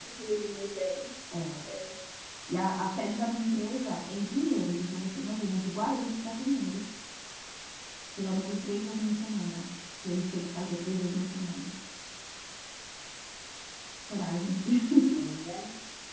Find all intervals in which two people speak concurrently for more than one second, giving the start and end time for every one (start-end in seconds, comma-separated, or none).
none